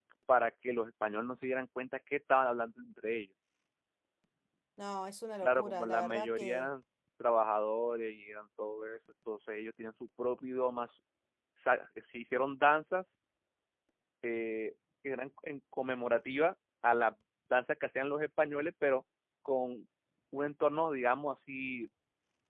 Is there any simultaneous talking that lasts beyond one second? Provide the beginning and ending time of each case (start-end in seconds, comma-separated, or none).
5.4-6.7